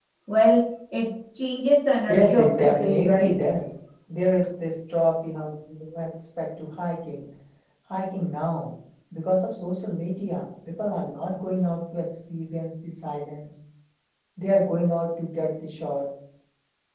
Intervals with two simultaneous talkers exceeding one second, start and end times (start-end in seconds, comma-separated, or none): 2.1-3.4